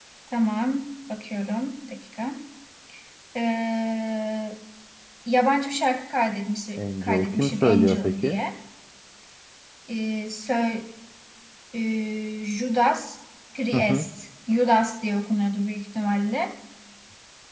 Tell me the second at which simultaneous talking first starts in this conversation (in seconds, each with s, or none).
6.8 s